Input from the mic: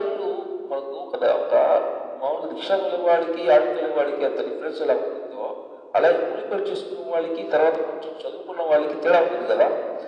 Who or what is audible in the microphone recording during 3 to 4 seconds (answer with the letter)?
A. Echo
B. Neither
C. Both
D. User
A